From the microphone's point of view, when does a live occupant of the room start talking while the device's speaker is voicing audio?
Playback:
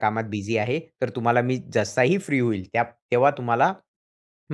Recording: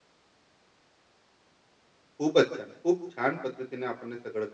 2.2 s

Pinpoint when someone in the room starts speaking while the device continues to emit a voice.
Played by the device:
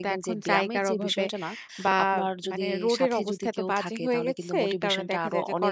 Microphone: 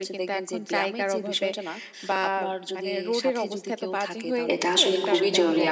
4.5 s

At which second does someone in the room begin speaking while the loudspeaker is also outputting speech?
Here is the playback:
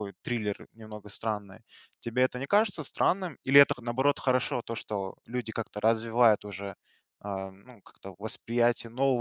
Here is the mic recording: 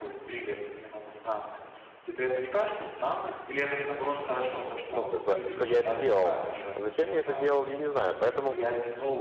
4.9 s

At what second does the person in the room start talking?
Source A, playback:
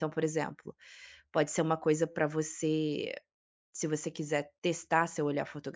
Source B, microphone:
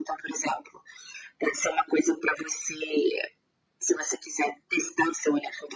none

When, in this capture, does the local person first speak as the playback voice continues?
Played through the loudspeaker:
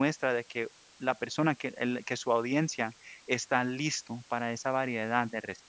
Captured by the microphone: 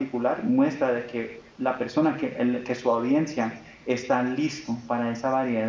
none

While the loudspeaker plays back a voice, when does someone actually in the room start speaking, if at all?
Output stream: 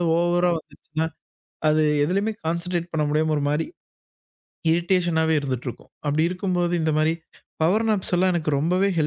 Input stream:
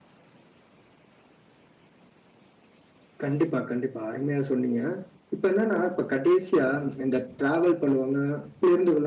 3.2 s

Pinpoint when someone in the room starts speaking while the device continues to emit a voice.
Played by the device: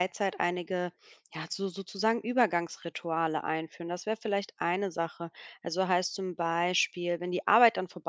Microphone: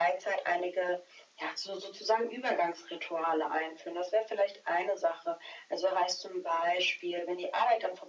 none

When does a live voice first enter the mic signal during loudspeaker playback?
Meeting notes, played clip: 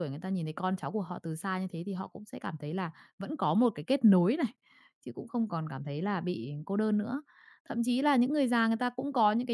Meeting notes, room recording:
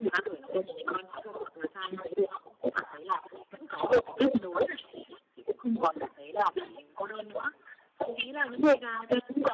none

